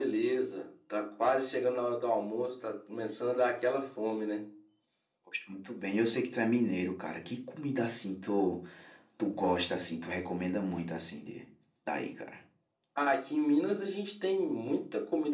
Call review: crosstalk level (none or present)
none